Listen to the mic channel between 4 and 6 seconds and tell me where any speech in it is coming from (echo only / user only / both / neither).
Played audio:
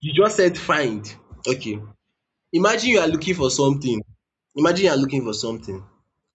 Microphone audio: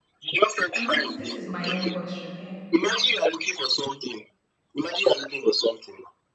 echo only